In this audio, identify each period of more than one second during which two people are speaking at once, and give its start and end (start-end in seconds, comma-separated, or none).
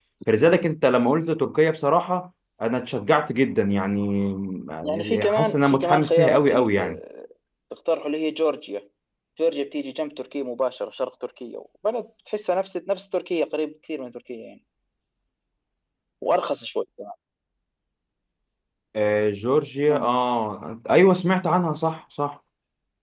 4.8-7.0